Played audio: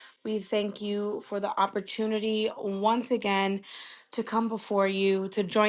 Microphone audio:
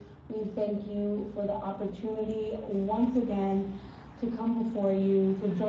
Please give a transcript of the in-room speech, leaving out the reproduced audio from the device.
none

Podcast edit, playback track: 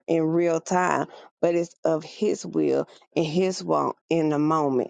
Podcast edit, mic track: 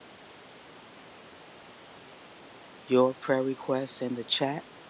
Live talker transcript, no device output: your prayer requests in the chat.

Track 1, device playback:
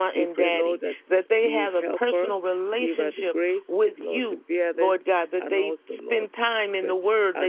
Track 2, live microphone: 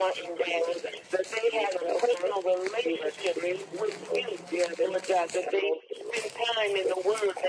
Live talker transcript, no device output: none

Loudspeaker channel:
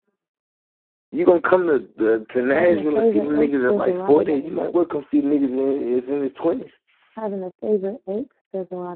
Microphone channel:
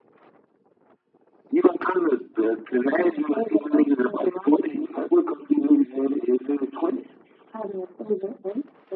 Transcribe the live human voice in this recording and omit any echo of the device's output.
none

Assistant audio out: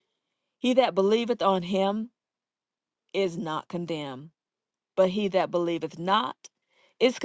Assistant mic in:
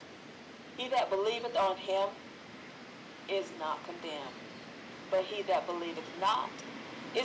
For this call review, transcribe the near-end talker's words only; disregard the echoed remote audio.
none

